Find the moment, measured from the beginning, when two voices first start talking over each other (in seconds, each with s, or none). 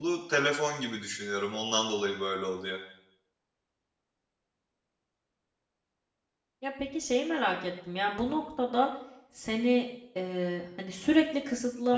none